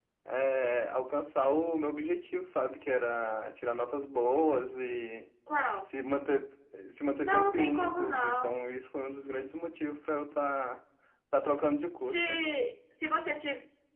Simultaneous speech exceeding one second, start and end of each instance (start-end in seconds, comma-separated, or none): 7.2-8.6